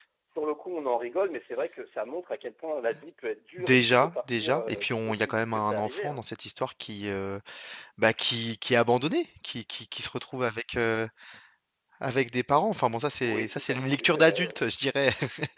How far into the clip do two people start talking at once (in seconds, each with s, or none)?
3.6 s